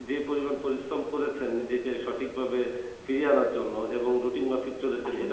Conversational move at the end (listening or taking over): taking over